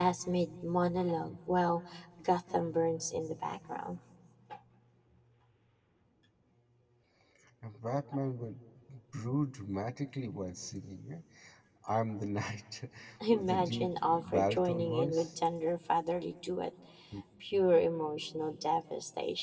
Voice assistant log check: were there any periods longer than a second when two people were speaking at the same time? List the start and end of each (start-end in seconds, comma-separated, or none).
13.3-15.3